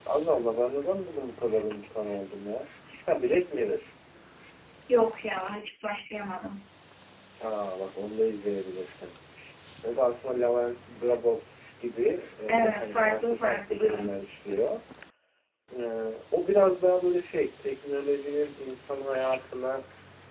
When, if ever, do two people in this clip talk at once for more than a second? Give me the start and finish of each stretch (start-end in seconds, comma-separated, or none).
12.5-14.0